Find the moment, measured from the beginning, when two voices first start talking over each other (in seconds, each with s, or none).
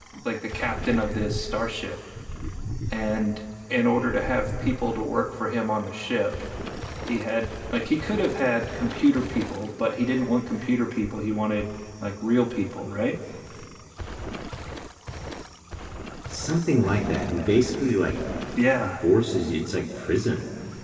none